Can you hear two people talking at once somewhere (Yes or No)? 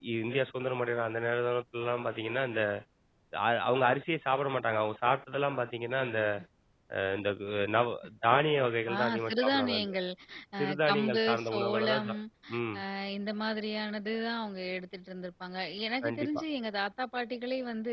Yes